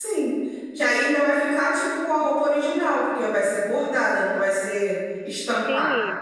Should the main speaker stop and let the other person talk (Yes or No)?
Yes